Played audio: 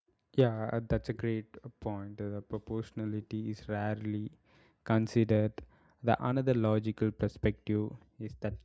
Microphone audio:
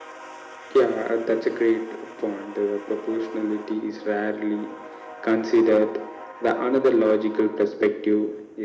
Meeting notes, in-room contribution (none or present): none